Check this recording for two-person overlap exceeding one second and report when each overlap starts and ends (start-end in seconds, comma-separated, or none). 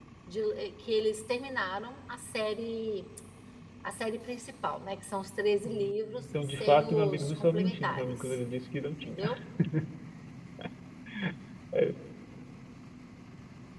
5.6-8.4